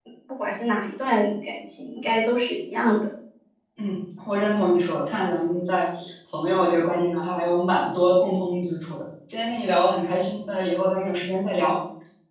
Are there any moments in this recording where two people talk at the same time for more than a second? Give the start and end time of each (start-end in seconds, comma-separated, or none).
none